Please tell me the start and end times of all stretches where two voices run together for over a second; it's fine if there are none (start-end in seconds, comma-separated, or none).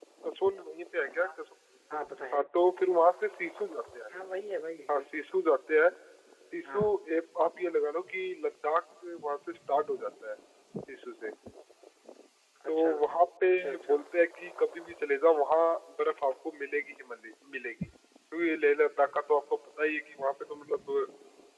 none